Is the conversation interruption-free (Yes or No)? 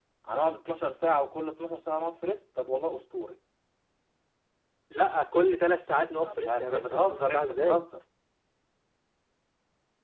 No